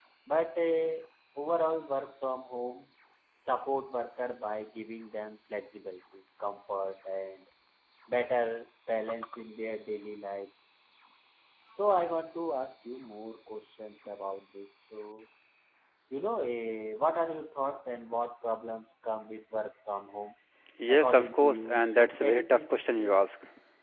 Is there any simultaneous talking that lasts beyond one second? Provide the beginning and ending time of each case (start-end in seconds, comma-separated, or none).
20.9-23.3